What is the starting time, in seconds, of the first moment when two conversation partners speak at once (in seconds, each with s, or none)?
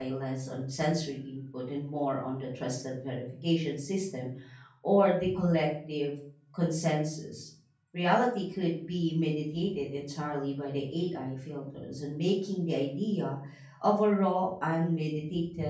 none